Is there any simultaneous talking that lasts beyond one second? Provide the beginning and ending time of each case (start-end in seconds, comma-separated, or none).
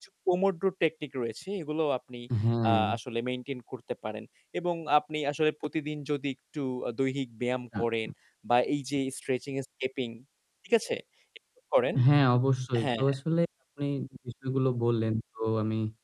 none